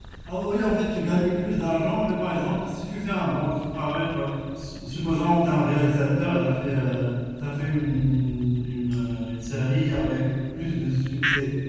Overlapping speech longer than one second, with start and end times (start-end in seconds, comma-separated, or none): none